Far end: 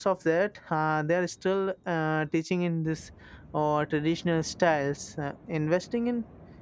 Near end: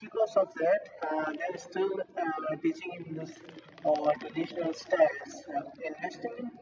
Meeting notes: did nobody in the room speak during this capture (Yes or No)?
Yes